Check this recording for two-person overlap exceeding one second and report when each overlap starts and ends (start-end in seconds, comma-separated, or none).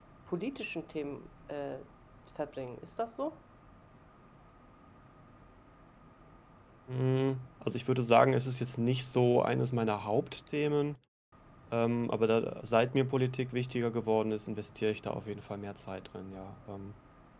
none